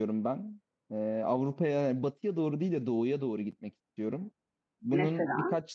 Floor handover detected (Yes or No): No